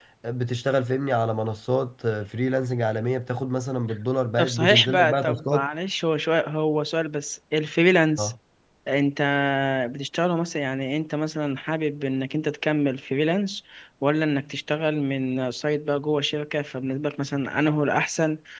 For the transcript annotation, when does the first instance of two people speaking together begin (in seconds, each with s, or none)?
4.4 s